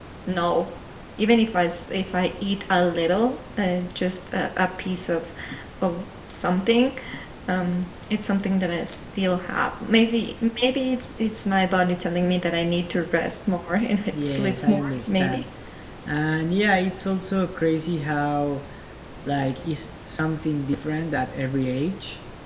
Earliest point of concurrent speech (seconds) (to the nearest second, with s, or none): 14 s